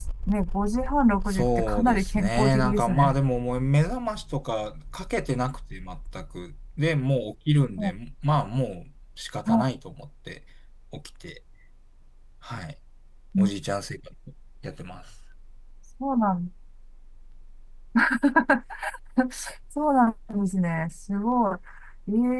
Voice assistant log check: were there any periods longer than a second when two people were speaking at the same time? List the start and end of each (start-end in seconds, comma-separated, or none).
1.3-3.1